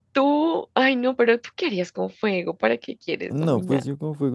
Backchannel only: No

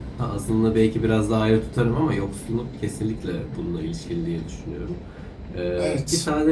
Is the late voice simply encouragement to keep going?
Yes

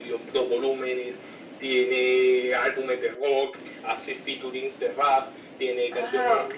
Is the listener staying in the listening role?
No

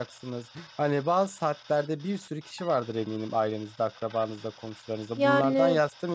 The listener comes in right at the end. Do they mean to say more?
No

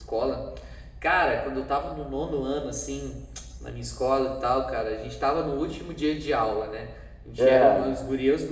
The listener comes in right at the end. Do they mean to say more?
No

